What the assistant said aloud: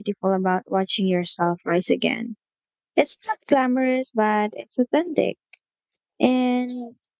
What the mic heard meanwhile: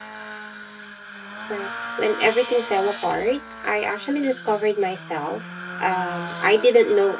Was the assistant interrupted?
Yes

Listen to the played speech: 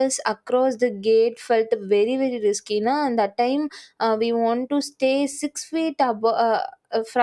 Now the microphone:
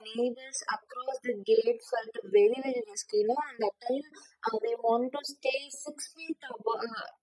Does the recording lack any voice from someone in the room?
Yes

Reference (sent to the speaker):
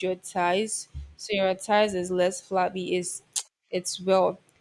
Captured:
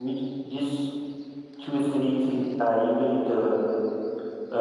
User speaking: Yes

